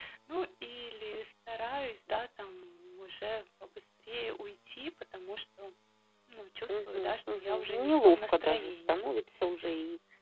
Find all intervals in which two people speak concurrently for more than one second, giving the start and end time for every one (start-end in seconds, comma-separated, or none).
6.7-9.1